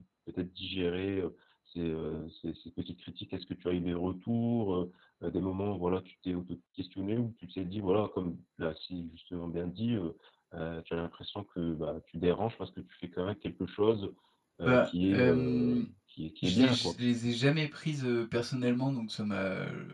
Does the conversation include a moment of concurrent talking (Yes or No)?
Yes